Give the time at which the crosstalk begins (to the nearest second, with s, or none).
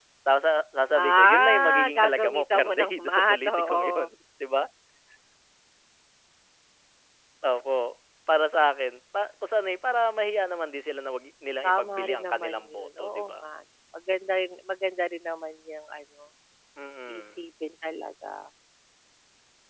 1 s